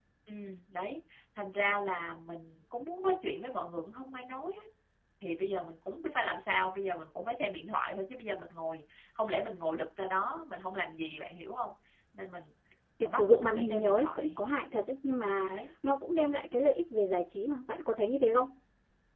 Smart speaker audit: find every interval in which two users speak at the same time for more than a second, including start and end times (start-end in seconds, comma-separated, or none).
13.2-14.4